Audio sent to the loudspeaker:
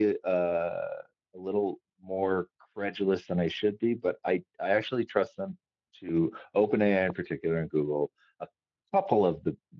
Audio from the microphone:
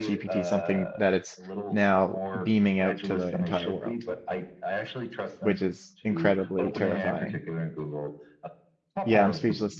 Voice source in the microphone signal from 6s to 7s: both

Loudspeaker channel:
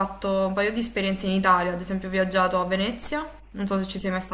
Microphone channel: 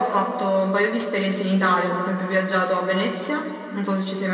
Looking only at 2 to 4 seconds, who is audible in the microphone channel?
echo only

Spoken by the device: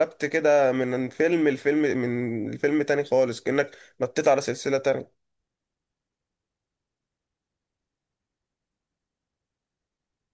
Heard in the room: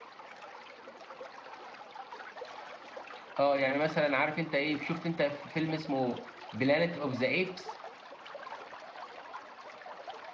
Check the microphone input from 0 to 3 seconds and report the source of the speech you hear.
neither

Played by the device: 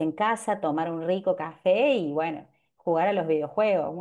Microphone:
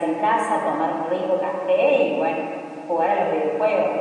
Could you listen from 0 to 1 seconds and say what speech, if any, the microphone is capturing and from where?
echo only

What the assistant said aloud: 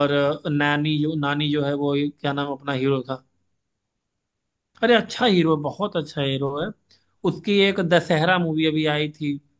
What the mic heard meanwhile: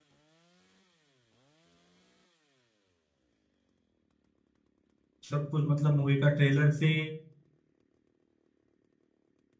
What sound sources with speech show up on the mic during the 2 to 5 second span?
neither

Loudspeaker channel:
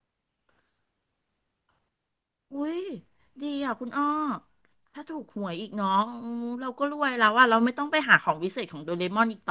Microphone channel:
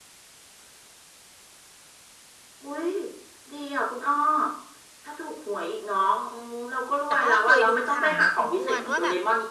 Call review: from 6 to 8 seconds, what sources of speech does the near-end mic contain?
both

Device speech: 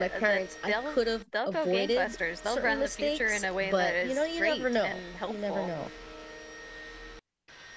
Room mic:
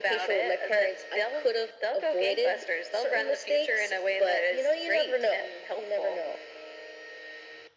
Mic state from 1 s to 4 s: echo only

